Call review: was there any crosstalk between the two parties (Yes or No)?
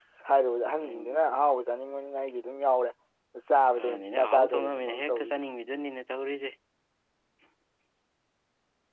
Yes